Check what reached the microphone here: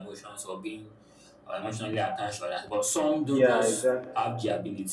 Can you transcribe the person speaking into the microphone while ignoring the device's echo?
Yeah, exactly.

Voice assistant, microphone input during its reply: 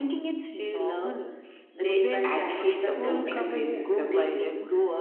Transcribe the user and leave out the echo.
they actually supporting racism

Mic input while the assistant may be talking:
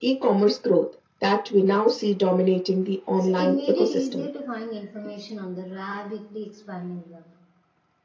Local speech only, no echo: So it made it easier to find information on the rapidly expanding web.

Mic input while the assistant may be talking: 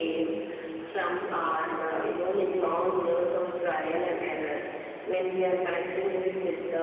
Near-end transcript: none

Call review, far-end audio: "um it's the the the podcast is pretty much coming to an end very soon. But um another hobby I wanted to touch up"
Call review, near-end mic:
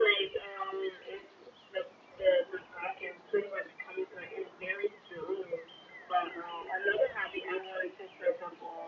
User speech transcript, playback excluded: none

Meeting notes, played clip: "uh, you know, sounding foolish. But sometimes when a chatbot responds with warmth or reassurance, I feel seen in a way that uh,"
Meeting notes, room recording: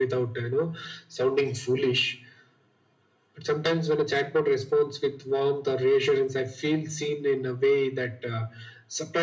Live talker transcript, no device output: none

